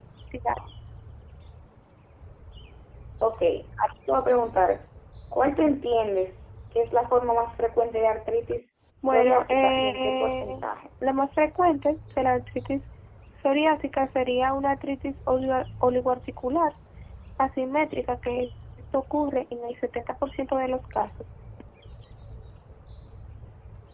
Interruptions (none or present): present